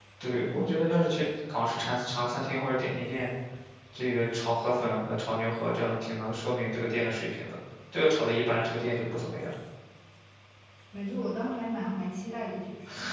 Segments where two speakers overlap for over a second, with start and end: none

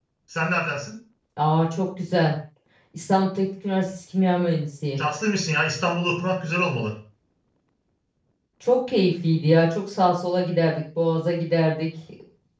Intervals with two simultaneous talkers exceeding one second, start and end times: none

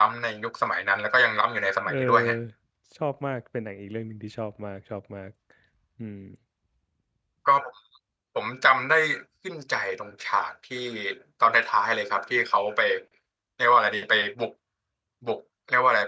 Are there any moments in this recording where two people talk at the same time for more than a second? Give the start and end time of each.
none

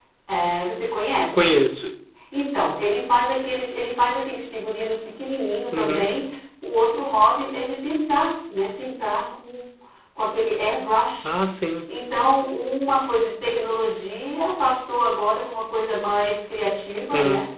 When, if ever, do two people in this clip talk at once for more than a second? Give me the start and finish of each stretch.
none

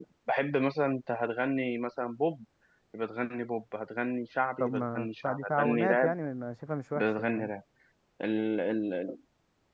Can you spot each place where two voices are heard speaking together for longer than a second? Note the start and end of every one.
4.6-6.1

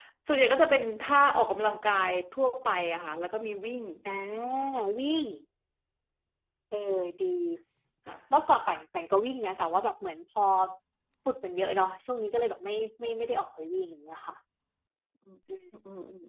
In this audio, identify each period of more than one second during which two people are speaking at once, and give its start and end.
none

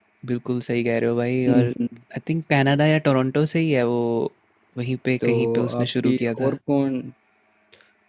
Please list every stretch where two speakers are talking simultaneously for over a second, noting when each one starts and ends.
5.2-6.5

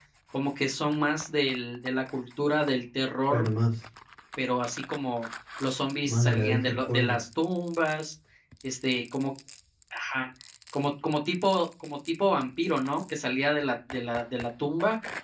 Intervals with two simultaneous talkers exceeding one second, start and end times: 6.0-7.2

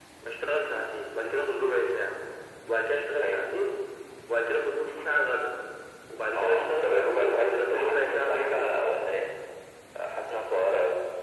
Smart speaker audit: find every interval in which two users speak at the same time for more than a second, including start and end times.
6.3-8.7

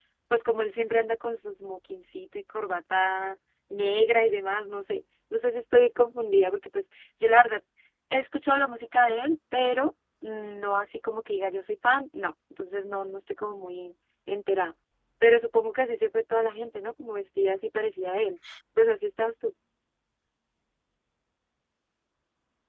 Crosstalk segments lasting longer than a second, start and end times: none

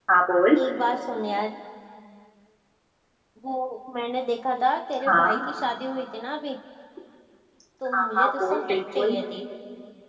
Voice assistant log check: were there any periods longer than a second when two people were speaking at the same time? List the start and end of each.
7.9-9.2

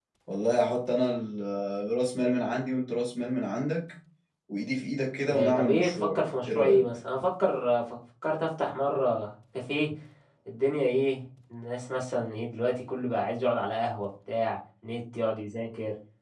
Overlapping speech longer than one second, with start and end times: 5.2-6.8

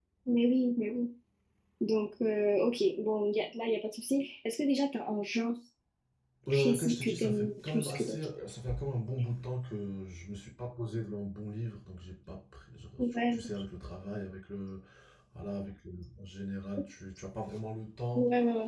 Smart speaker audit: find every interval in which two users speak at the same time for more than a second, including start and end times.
6.5-8.2

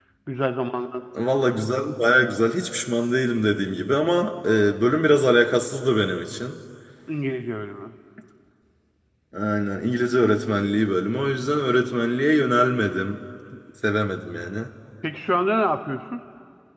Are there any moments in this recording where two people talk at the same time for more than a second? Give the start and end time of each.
none

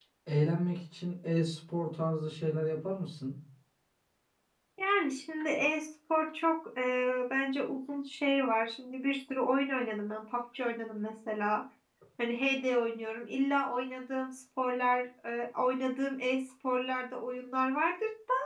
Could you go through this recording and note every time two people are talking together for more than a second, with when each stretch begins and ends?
none

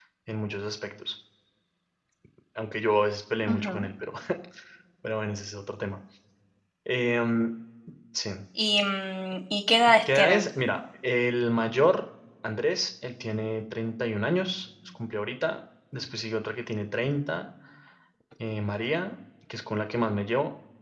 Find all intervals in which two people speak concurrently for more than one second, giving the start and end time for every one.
none

